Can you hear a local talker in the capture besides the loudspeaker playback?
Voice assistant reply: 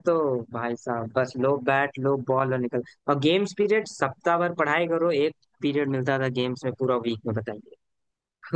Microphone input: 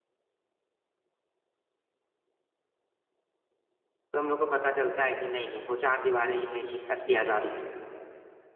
Yes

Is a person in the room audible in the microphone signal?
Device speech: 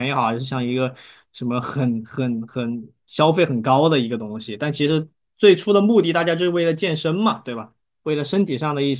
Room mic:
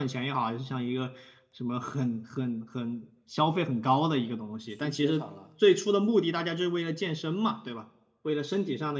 Yes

